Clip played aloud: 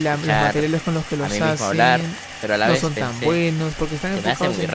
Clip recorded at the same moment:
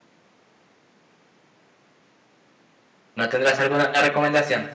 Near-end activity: present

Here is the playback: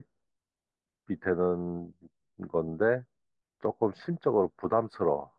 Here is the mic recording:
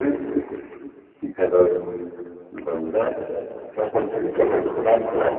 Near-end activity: none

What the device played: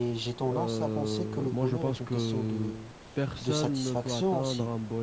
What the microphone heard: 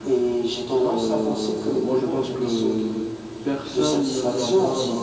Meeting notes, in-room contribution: present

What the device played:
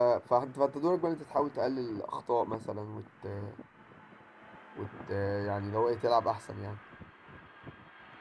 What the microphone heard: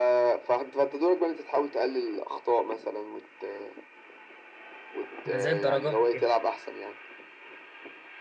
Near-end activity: present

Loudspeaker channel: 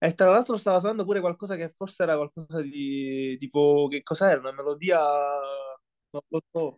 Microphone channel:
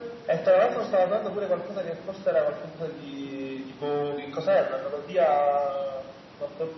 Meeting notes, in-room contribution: none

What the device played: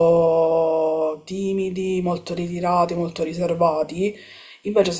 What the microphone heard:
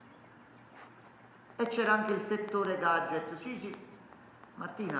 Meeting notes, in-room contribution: present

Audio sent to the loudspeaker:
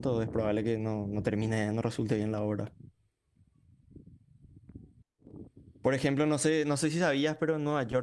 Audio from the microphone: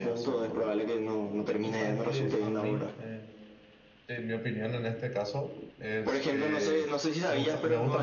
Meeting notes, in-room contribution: present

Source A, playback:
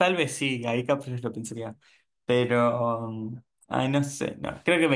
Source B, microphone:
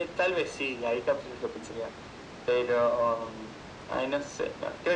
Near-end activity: none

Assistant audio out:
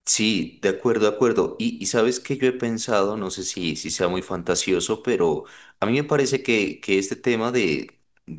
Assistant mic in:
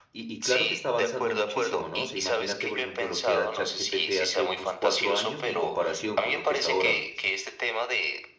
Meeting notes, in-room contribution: present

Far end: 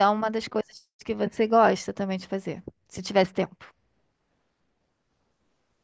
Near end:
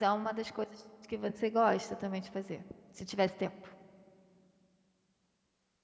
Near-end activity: none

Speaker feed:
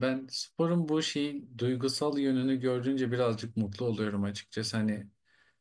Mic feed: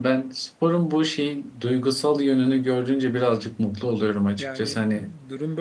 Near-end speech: present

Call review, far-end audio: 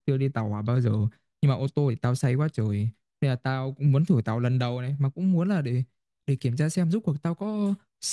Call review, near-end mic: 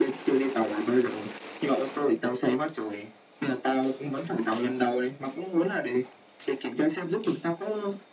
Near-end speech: none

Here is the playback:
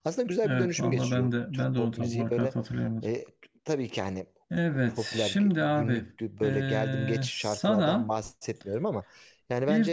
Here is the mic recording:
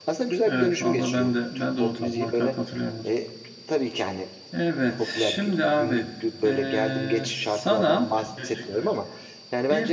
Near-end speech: present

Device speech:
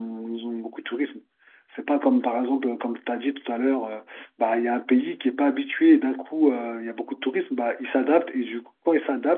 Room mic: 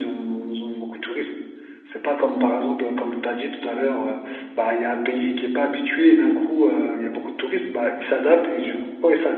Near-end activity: none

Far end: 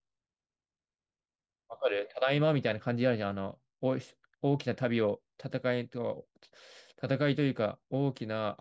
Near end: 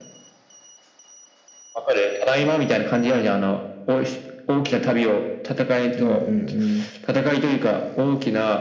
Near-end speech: present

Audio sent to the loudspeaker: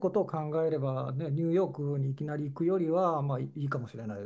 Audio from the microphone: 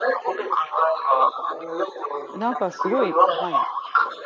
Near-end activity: present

